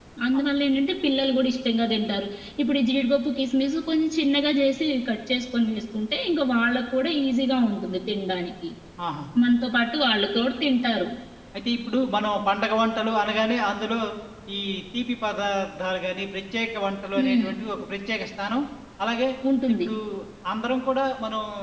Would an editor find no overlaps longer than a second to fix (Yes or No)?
Yes